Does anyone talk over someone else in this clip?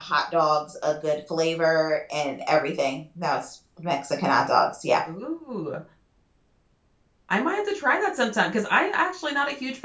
No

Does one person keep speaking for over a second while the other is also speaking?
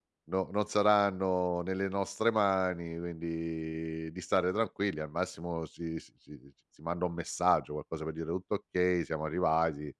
No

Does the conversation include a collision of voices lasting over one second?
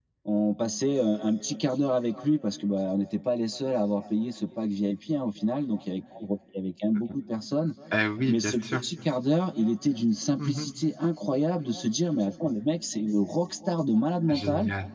No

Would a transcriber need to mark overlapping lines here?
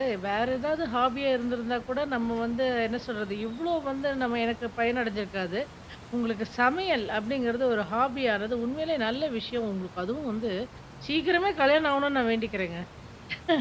No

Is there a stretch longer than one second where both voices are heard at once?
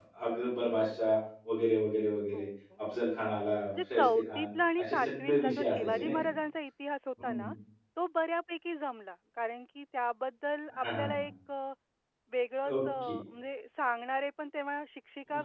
Yes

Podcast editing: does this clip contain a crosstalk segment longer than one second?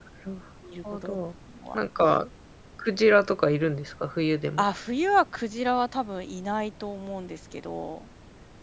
No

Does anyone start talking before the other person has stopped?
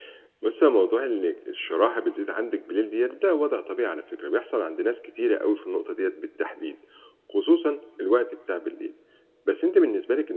No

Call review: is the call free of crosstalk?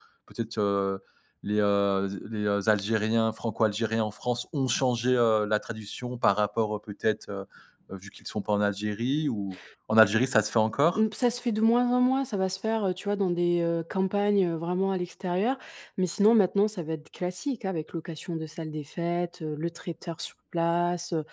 Yes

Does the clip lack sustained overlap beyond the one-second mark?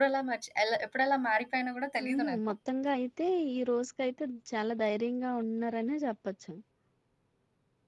Yes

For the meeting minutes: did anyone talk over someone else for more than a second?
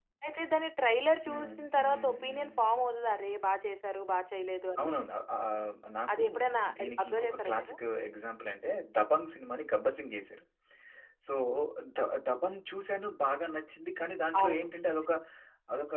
Yes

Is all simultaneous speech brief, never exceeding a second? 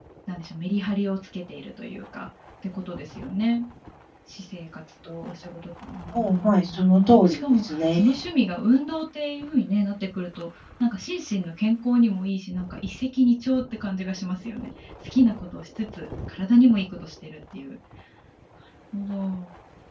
No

